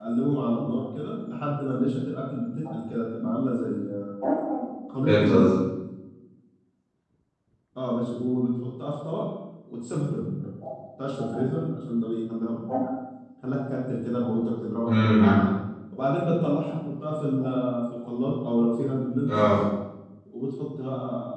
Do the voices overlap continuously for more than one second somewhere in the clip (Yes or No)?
No